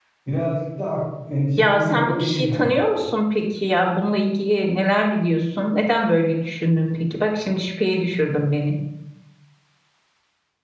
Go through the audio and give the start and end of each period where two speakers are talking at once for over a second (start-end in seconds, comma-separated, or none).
1.6-2.8